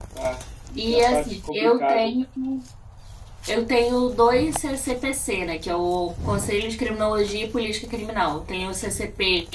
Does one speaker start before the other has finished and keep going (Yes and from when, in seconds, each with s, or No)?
Yes, from 0.8 s